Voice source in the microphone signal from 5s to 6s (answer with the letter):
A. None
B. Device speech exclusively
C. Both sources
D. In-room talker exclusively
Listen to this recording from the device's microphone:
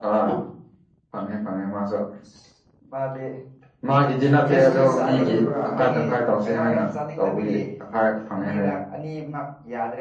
C